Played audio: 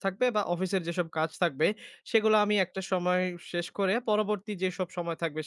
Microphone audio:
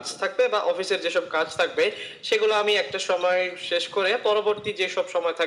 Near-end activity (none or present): none